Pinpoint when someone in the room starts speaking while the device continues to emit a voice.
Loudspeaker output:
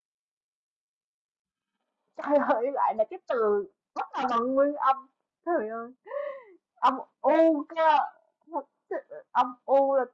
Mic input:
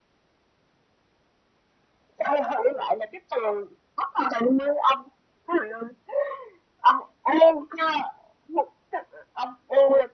none

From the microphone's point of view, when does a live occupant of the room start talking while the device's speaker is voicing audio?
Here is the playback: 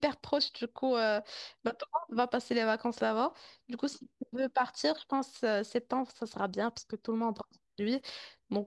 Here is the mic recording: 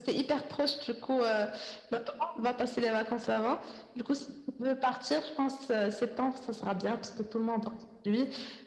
none

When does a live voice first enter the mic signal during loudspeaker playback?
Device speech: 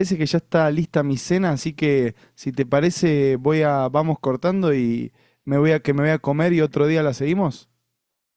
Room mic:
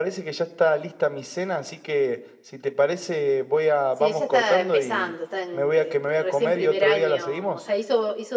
4 s

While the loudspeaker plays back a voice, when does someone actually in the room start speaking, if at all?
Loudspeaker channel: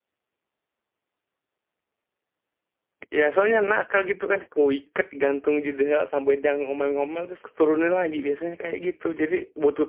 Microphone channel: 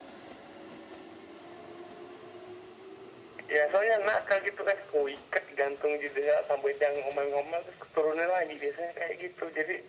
none

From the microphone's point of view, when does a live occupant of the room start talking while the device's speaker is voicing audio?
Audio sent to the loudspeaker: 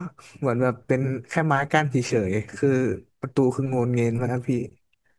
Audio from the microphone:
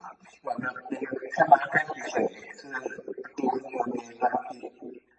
none

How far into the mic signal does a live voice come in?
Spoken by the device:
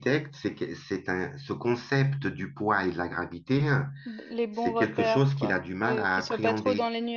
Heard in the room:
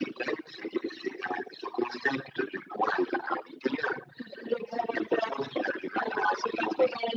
none

